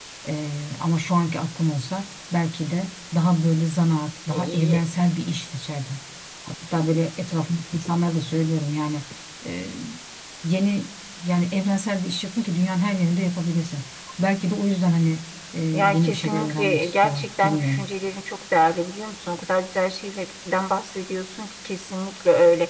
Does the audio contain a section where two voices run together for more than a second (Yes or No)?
Yes